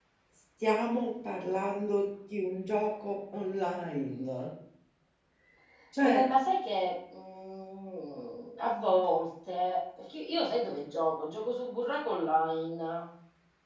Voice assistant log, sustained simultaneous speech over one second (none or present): none